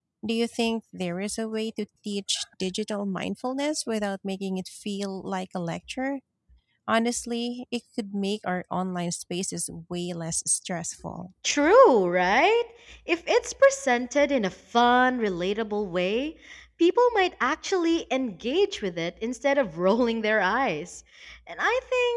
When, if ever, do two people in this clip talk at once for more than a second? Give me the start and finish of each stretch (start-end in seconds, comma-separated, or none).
none